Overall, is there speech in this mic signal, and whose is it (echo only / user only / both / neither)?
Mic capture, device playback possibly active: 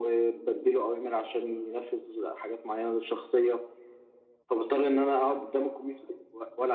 echo only